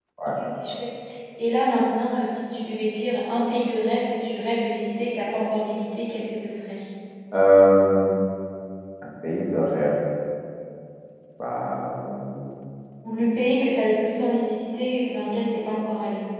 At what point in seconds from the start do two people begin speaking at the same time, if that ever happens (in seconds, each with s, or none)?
none